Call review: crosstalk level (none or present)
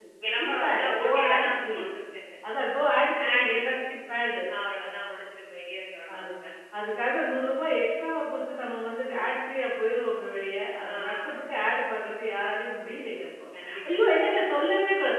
present